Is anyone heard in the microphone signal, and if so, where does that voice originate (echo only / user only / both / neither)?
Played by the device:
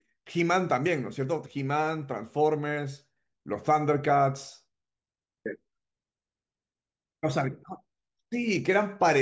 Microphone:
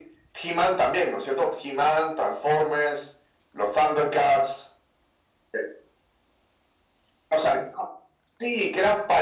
echo only